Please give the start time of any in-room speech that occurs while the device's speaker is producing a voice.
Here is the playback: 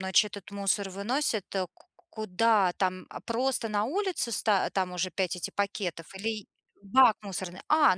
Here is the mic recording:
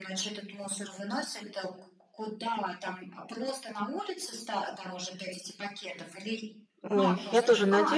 6.9 s

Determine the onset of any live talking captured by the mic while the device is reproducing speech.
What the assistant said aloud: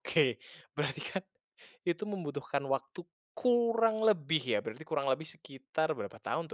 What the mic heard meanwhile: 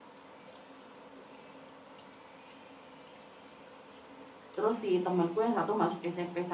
4.5 s

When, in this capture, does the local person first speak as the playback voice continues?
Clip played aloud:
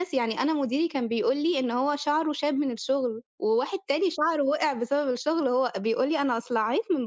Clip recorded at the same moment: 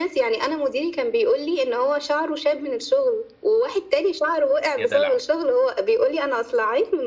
4.8 s

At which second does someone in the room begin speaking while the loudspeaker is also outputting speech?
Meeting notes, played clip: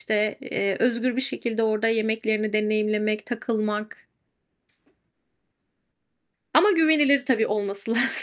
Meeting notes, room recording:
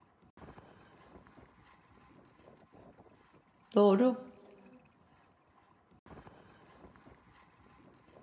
3.8 s

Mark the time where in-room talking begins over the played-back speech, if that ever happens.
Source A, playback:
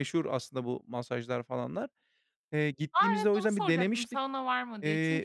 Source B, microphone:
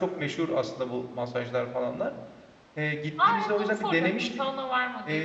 none

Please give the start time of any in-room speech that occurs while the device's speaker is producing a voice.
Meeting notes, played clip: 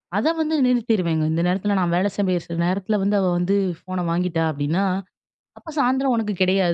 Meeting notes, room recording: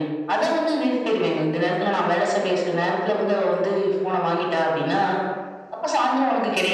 none

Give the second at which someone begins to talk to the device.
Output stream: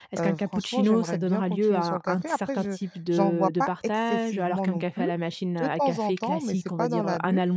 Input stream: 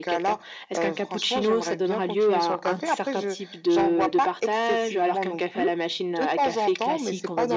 none

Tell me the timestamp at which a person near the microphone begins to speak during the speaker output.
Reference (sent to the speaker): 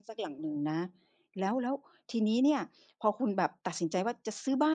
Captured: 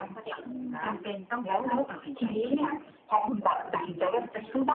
0.4 s

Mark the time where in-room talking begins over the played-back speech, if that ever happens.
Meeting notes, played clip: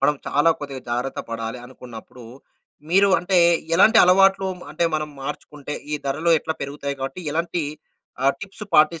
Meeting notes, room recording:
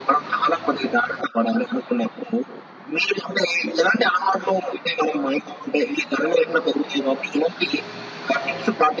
none

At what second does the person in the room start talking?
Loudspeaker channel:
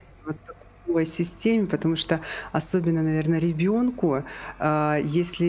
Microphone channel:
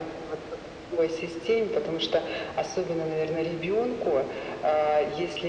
none

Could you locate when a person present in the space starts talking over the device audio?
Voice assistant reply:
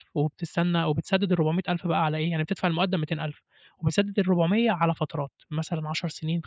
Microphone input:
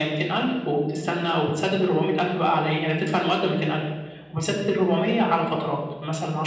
none

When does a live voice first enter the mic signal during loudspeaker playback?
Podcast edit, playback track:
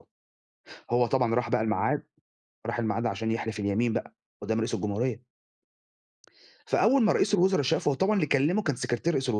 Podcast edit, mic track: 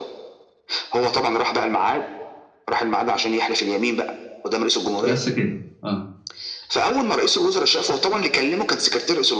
5.0 s

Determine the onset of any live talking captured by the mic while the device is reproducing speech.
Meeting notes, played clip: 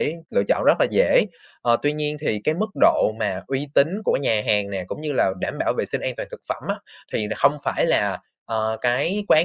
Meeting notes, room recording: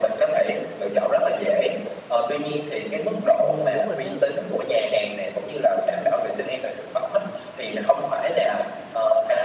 3.4 s

